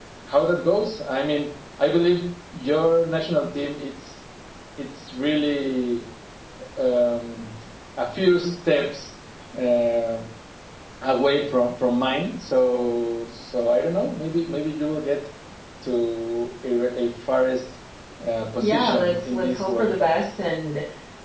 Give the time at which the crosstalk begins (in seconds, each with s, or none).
18.6 s